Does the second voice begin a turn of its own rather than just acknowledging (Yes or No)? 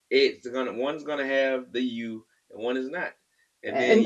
Yes